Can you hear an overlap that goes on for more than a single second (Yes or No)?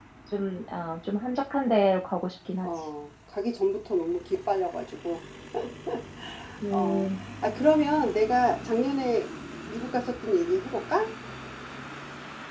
No